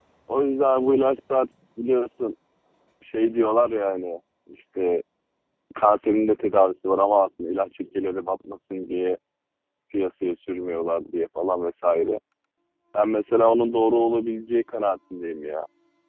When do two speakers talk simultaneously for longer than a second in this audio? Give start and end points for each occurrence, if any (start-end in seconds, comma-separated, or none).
none